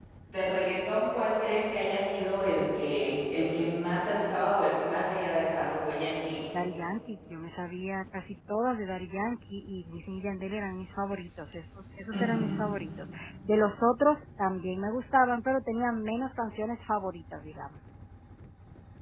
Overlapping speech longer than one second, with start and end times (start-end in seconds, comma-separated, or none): none